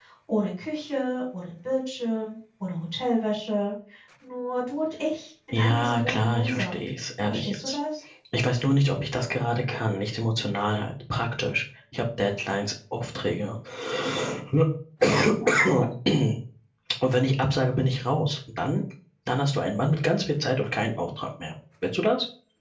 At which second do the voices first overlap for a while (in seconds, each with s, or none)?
5.5 s